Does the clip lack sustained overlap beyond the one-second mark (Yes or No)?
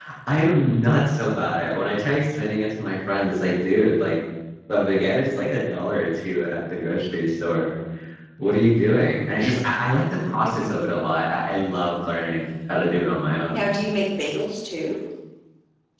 Yes